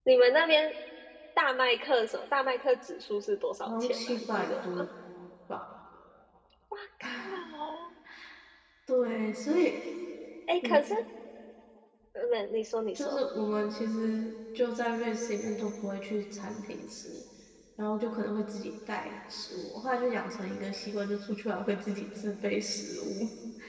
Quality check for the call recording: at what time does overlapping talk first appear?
3.7 s

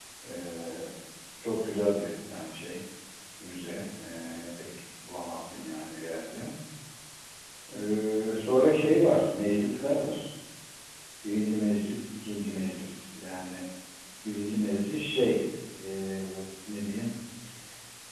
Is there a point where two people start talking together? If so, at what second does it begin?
none

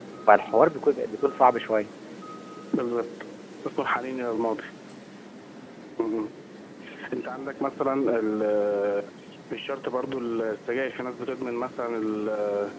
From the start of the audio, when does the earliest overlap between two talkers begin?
none

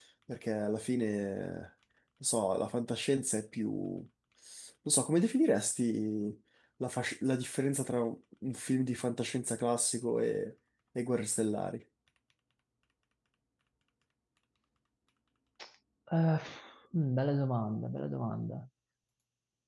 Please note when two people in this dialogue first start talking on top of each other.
none

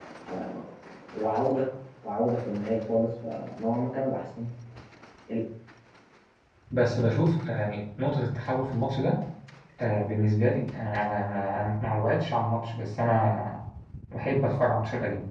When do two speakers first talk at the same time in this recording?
none

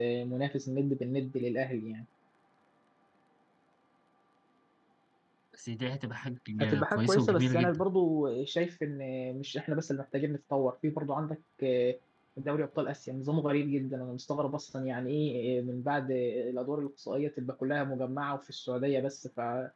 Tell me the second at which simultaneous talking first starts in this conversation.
6.6 s

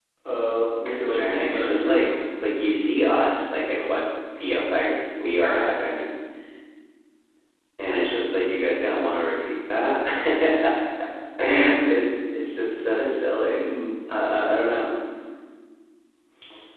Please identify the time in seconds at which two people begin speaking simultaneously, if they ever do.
0.8 s

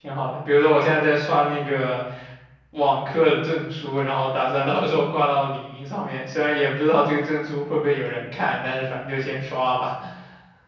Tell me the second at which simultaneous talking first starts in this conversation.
none

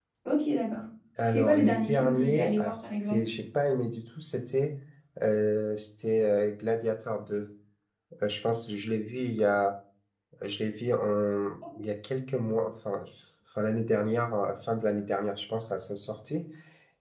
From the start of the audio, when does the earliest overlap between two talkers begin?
1.3 s

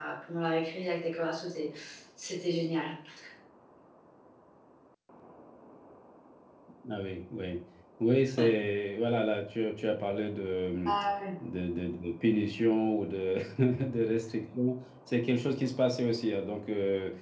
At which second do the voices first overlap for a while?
none

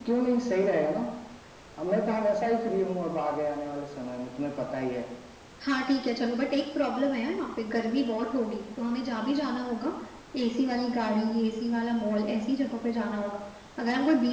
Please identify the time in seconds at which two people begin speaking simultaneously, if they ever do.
none

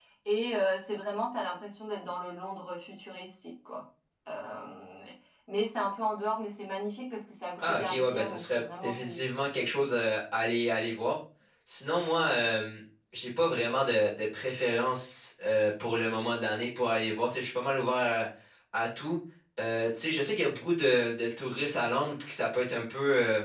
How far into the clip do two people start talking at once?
7.6 s

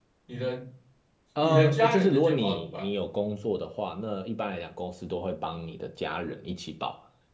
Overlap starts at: 1.4 s

